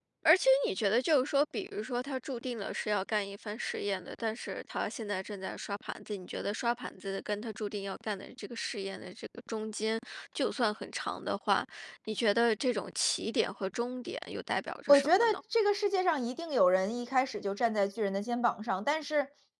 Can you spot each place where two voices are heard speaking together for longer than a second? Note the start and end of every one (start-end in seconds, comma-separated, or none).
none